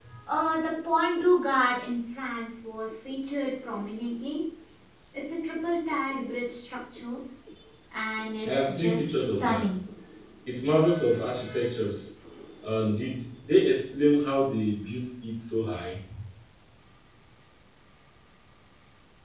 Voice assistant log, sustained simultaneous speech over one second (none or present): present